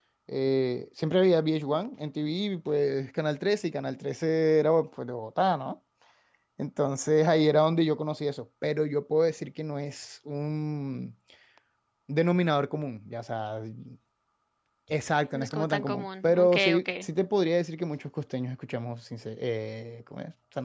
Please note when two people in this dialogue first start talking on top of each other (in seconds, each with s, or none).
15.3 s